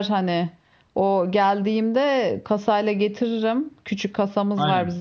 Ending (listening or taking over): listening